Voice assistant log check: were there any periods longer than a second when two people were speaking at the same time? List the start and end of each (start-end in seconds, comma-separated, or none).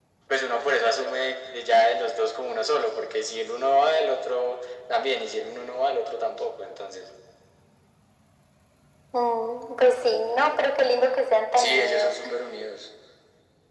none